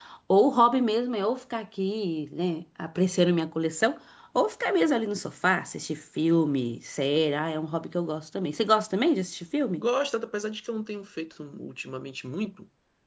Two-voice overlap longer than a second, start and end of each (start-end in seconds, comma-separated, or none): none